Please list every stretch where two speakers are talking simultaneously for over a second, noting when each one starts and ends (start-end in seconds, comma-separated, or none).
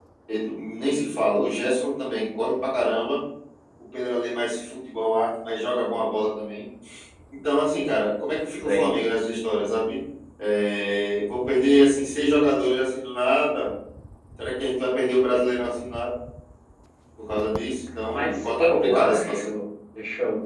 18.1-19.5